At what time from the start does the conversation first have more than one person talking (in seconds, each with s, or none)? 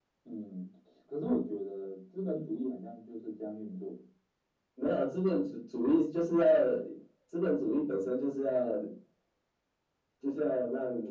none